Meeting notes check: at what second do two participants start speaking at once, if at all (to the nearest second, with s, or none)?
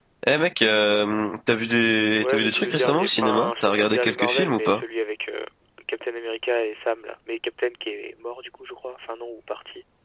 2 s